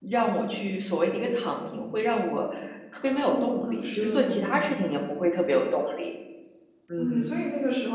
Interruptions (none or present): present